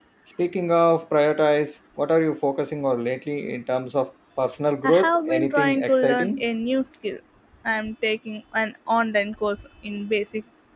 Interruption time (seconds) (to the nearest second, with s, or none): 5 s